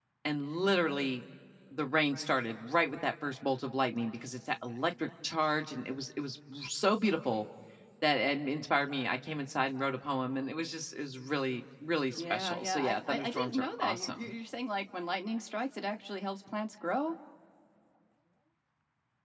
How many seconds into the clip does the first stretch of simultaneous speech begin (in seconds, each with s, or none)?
12.2 s